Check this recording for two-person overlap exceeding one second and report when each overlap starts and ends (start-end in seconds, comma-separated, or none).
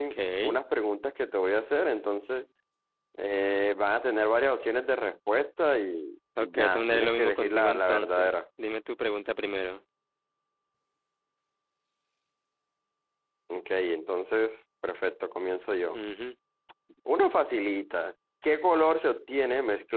6.4-8.4